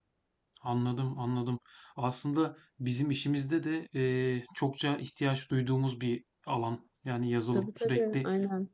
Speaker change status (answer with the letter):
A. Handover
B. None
A